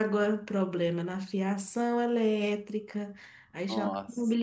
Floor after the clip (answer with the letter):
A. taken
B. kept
B